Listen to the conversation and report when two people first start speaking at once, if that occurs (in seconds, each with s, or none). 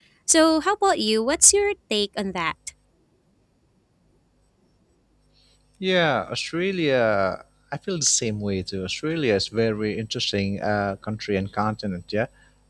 none